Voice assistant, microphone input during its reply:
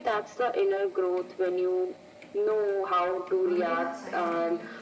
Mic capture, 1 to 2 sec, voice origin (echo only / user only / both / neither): echo only